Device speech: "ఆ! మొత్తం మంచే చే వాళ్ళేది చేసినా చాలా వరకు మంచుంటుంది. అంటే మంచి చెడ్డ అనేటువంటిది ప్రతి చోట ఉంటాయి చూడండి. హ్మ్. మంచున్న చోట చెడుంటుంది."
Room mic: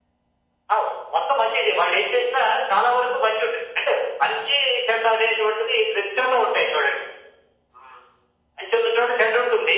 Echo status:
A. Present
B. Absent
A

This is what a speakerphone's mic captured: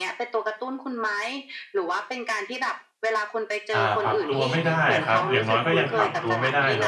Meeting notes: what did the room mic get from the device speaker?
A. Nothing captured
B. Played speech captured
B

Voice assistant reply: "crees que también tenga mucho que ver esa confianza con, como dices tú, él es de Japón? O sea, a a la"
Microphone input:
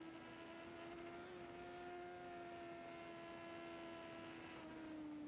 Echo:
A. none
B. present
A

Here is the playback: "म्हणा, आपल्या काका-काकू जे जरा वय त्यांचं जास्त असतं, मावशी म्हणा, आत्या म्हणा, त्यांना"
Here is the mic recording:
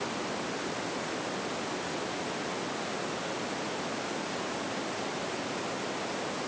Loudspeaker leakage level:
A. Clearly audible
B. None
B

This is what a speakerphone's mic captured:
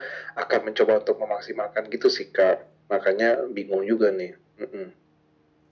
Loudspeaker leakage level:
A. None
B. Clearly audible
B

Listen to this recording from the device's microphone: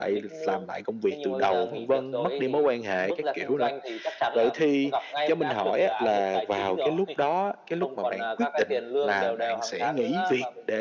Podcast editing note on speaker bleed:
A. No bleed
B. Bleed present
B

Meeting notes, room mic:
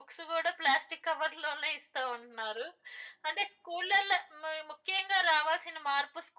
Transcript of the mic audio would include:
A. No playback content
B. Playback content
B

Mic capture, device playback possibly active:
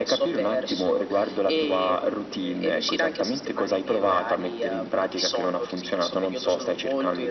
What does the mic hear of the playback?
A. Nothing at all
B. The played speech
B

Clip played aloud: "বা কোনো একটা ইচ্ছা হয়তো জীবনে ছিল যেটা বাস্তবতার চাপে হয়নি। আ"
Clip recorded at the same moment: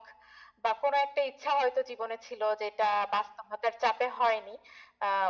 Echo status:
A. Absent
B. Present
B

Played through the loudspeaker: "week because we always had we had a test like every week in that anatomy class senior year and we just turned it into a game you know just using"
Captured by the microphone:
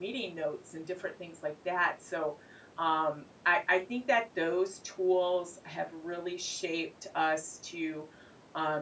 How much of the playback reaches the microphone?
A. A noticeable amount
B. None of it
B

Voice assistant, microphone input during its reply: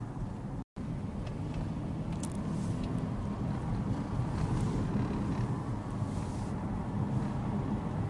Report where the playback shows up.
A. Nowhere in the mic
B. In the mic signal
A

